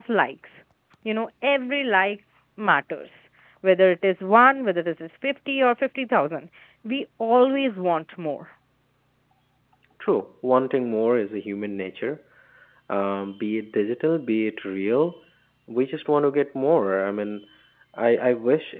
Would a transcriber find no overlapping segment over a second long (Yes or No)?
Yes